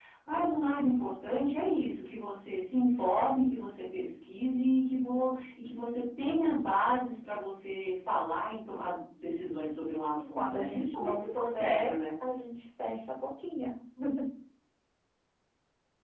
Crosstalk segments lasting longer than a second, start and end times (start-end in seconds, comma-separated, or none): 10.1-11.9